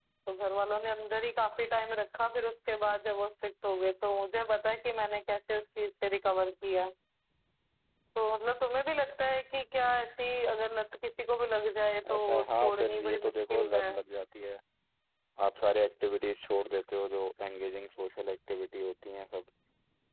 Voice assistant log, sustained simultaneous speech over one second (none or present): present